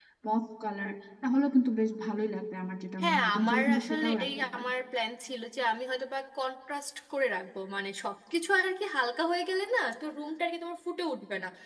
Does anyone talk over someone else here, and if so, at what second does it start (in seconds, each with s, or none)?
3.0 s